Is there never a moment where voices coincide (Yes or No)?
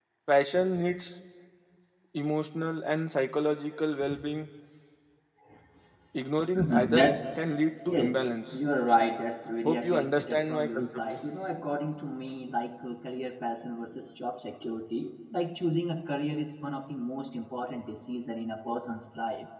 No